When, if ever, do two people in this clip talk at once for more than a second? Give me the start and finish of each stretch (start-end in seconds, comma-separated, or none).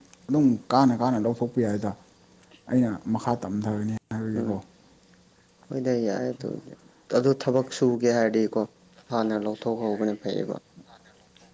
none